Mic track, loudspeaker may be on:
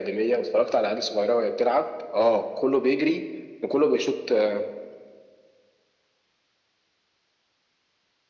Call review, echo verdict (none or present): present